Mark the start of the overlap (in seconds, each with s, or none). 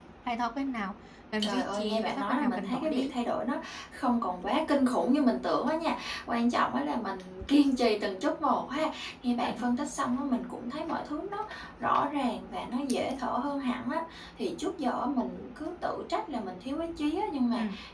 1.4 s